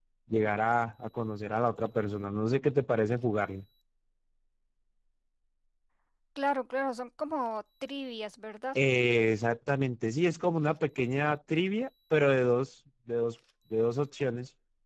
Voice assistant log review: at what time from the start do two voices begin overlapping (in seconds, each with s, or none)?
none